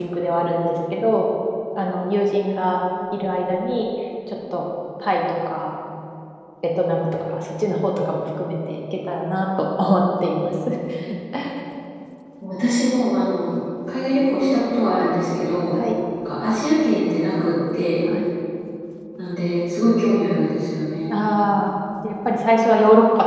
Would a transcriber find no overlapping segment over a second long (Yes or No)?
Yes